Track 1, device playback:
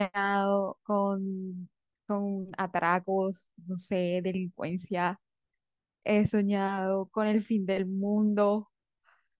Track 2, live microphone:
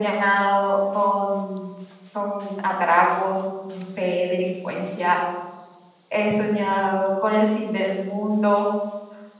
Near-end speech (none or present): none